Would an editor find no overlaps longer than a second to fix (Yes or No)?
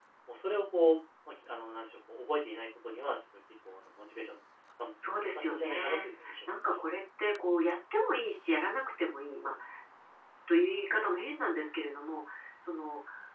No